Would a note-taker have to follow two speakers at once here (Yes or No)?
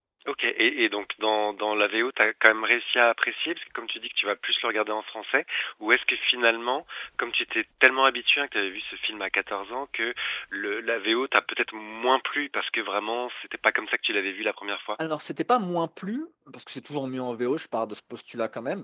No